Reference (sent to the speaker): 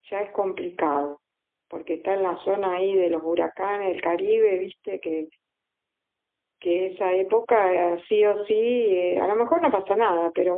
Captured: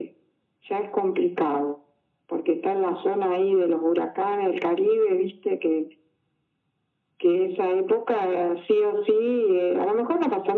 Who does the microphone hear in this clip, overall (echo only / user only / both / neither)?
echo only